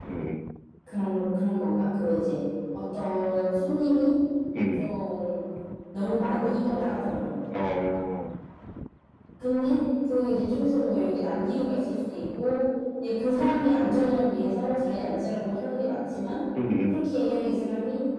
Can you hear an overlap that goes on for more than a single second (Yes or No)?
No